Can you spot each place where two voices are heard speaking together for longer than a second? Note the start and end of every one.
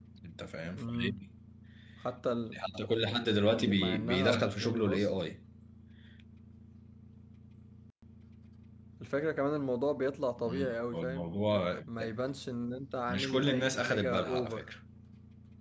3.5-5.1, 13.1-14.7

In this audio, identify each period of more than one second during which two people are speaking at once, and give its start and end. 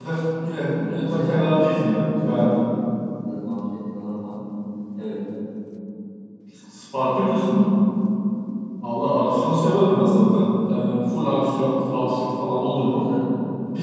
0.7-2.6

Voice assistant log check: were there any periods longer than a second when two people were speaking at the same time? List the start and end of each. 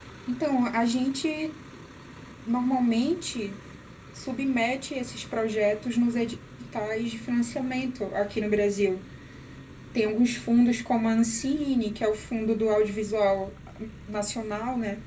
none

